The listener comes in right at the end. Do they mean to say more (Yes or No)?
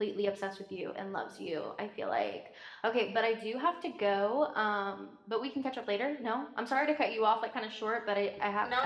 Yes